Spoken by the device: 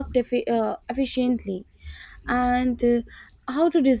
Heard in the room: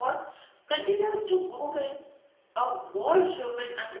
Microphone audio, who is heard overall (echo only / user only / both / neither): user only